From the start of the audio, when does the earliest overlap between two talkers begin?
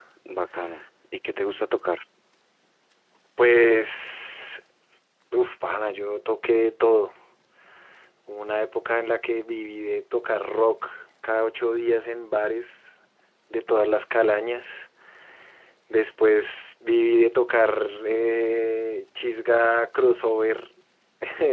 none

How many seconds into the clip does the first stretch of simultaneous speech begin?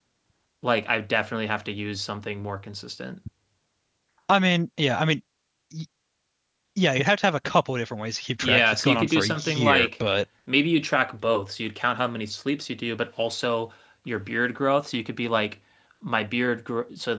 8.4 s

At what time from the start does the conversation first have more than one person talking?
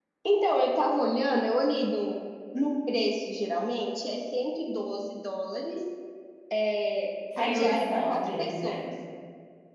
7.4 s

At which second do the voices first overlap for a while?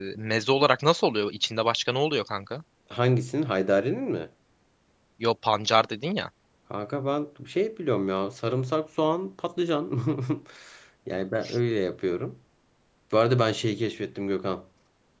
none

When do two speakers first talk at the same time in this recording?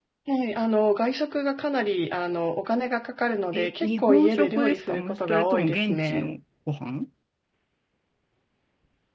3.5 s

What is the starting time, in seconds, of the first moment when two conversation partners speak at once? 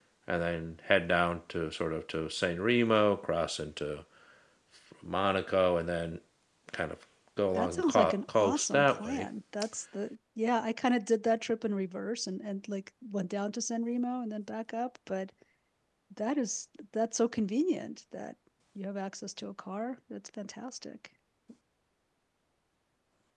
7.6 s

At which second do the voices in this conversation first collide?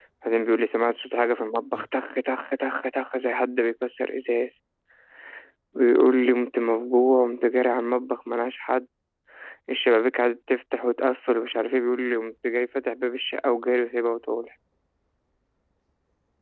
none

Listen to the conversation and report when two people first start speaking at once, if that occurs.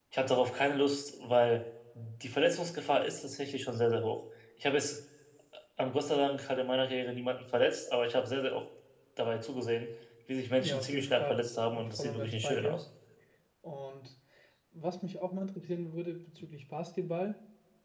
10.6 s

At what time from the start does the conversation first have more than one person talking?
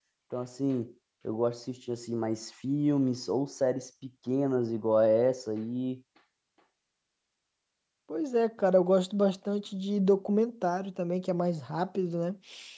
none

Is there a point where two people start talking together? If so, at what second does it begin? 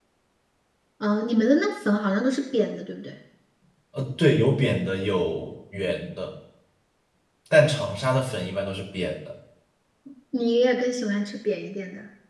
none

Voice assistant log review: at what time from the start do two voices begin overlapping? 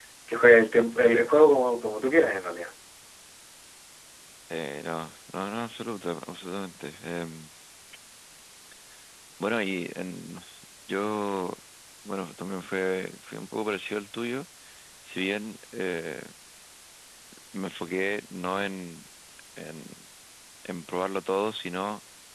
none

